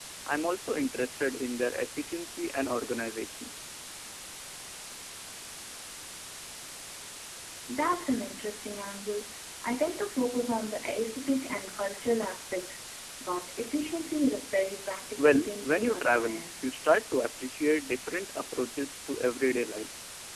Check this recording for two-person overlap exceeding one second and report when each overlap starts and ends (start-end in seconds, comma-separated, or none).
15.2-16.5